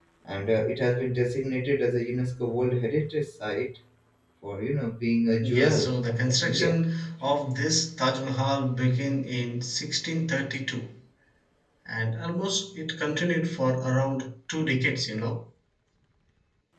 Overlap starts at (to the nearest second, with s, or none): 5 s